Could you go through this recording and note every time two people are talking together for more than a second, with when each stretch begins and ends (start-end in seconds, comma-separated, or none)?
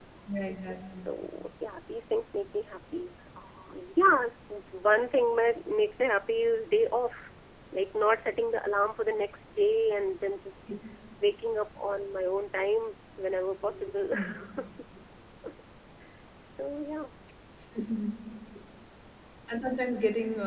none